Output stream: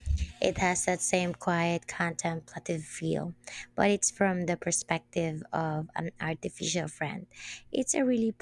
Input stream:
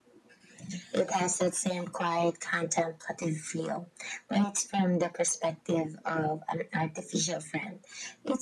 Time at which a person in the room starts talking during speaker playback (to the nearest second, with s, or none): none